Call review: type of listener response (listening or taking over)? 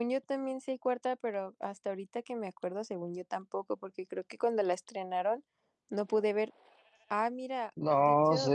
taking over